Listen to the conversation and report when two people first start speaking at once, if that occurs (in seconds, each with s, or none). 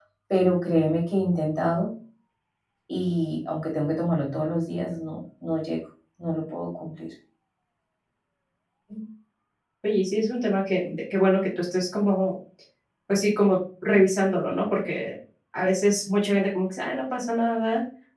none